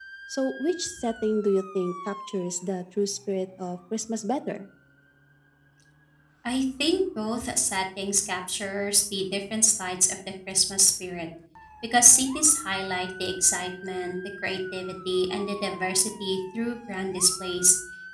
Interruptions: none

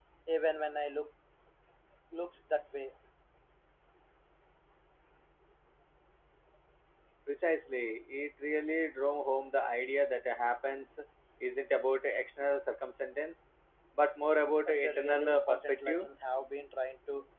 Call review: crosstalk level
present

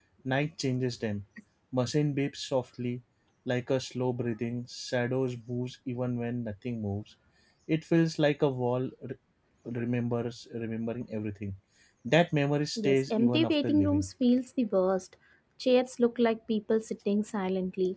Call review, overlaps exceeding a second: present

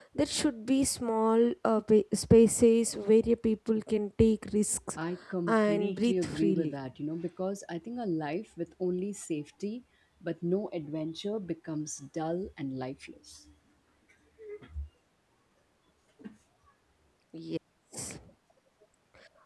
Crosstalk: present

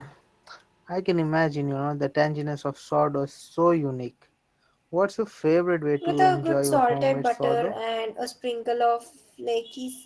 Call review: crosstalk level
present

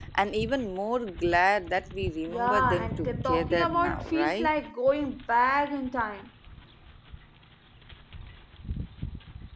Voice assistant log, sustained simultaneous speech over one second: present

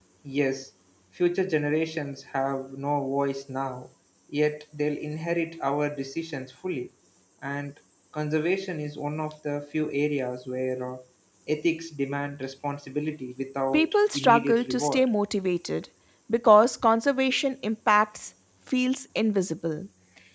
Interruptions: present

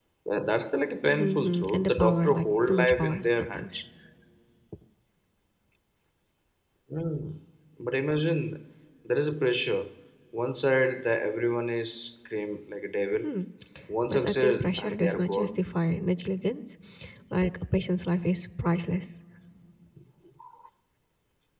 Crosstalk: present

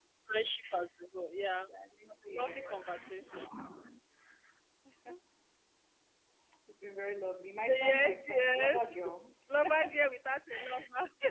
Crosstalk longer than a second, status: present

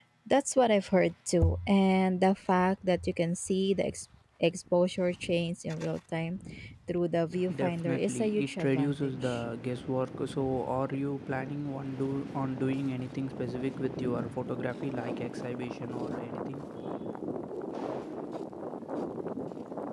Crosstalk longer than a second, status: present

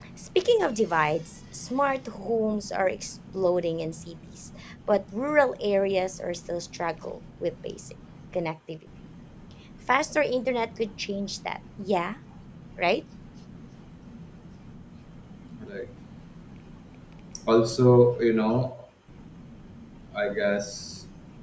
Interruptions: none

